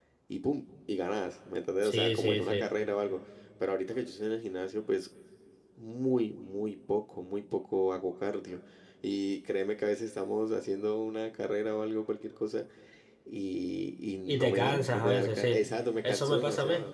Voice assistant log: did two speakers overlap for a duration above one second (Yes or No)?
Yes